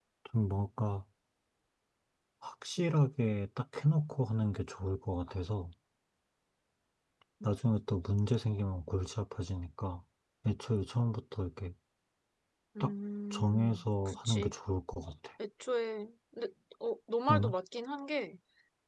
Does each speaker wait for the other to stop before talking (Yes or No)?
No